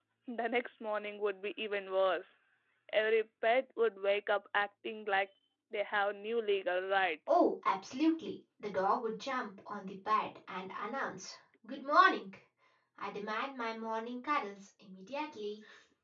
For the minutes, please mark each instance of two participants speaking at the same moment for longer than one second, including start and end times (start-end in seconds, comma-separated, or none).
none